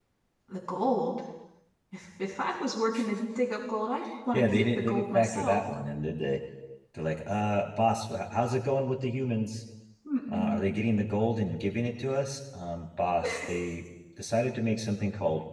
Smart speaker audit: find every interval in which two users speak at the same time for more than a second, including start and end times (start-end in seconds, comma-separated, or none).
4.3-5.6